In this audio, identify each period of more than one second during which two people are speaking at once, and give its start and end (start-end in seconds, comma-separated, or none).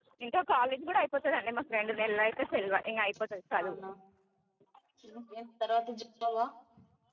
none